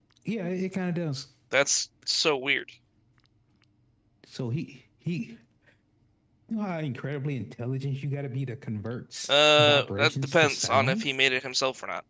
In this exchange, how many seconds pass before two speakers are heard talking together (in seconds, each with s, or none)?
9.3 s